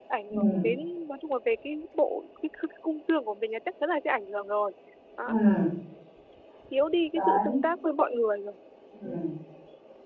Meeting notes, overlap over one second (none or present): none